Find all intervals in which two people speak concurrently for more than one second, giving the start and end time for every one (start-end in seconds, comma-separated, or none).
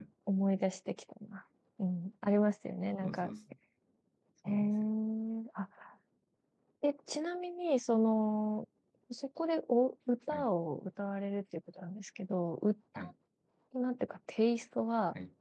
none